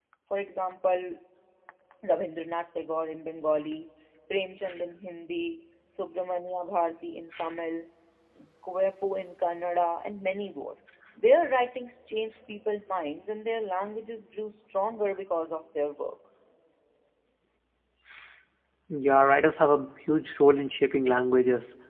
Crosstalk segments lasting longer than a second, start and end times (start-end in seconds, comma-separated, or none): none